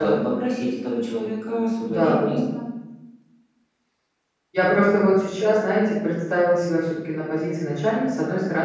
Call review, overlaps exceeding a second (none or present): none